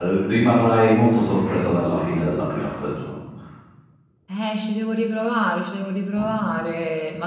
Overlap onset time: none

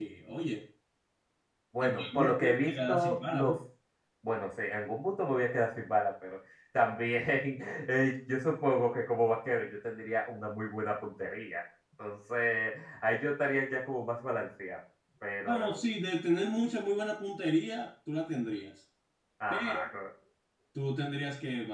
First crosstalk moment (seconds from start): 1.8 s

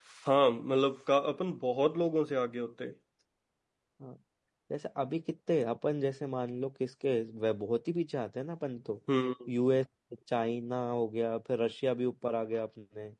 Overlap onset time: none

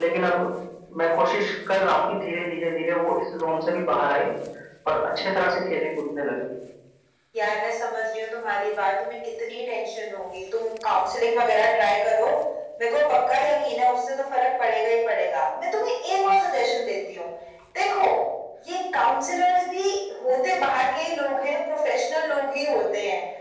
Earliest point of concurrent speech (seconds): none

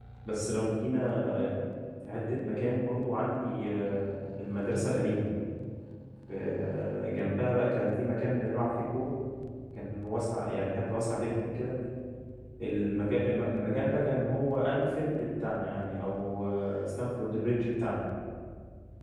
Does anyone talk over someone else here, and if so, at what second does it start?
none

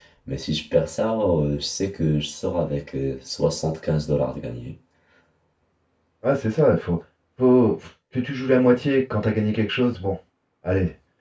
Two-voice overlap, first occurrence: none

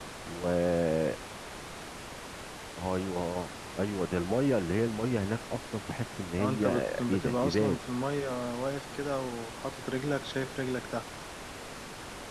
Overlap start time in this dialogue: 6.4 s

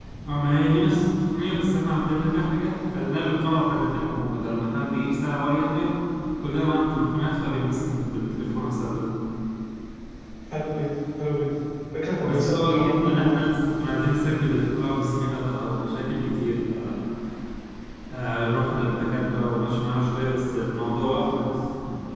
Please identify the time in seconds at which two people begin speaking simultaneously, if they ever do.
12.2 s

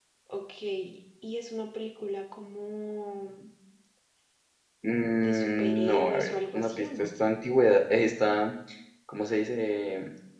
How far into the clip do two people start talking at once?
5.2 s

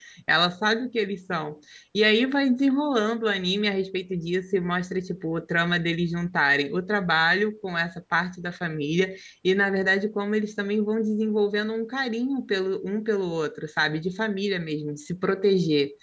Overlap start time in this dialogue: none

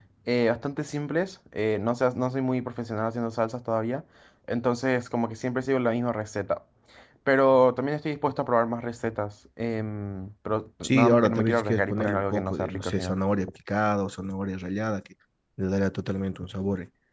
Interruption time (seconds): 10.8 s

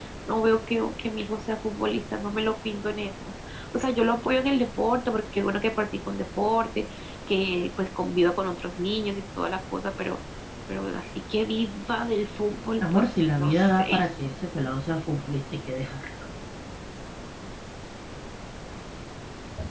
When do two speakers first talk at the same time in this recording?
12.8 s

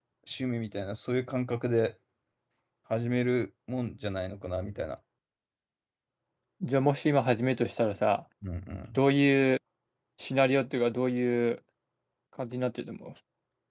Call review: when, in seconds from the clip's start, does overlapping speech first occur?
none

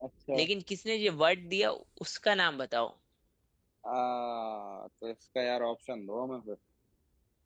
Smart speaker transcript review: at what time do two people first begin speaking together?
none

